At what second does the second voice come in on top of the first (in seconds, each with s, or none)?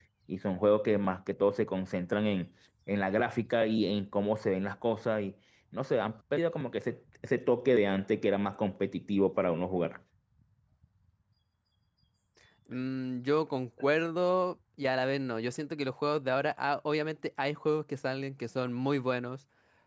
none